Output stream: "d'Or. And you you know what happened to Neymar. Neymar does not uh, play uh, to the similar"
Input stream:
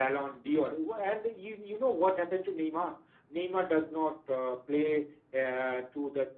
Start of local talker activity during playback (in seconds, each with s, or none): none